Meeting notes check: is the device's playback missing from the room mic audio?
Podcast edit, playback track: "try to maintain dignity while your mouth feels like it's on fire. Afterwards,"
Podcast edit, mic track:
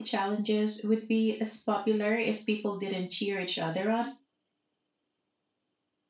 Yes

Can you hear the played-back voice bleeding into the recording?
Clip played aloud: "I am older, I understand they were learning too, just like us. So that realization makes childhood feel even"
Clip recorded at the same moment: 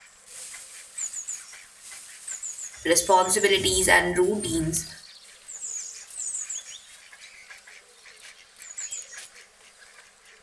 No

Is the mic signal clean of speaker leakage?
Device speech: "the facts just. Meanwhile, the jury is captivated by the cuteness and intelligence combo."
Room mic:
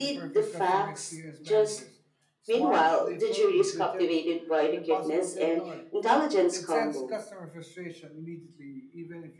No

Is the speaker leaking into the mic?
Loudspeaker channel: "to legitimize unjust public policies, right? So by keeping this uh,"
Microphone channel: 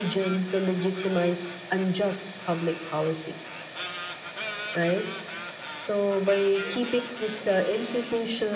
Yes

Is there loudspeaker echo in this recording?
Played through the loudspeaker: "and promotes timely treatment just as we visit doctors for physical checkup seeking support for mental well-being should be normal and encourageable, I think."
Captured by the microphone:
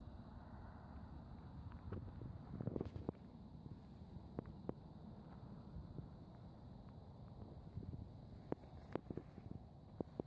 No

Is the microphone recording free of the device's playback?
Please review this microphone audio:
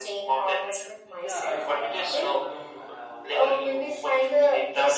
No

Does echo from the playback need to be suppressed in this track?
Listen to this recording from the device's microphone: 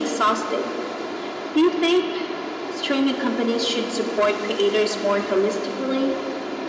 Yes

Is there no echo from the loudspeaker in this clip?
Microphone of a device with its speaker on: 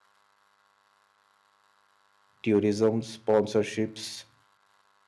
Yes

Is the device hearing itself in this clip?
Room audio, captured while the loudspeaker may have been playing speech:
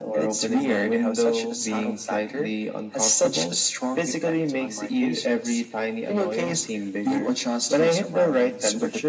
Yes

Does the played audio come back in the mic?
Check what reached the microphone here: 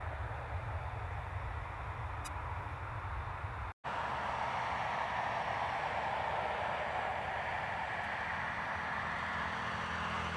No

